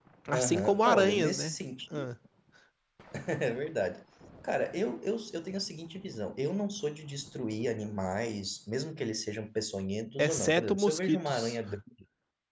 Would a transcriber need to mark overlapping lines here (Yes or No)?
Yes